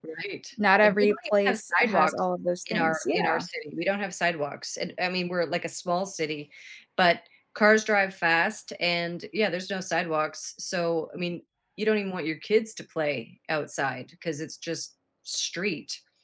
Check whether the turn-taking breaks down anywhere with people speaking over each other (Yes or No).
Yes